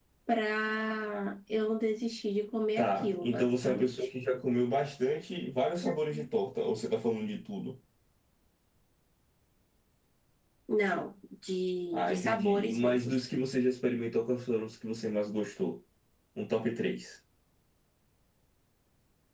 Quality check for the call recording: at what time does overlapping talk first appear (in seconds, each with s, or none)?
2.8 s